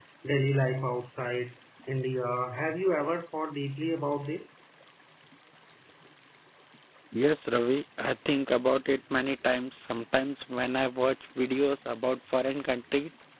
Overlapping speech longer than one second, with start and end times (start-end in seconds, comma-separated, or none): none